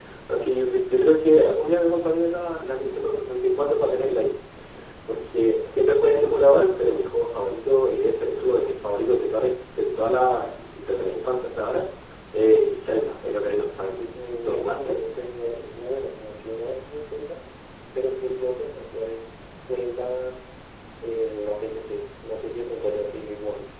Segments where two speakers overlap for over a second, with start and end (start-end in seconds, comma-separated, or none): none